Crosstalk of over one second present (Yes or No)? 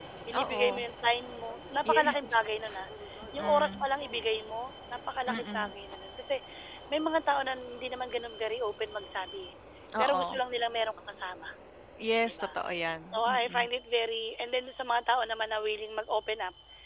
No